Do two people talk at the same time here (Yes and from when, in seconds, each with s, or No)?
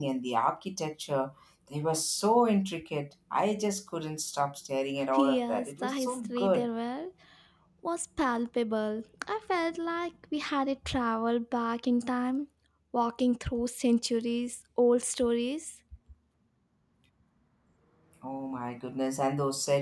Yes, from 5.1 s